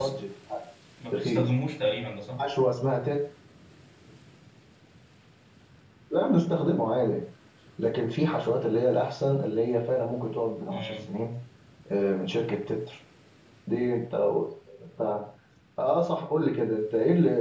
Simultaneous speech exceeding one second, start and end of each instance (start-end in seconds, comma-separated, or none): none